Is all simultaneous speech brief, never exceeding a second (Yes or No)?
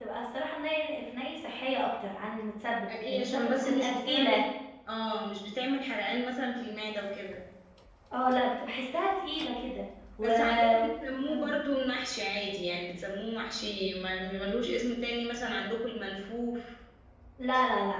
No